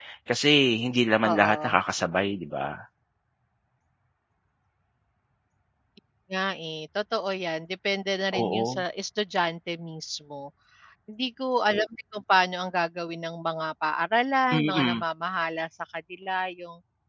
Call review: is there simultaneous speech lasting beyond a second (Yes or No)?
No